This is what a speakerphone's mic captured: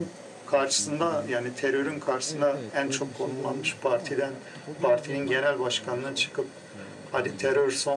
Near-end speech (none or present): present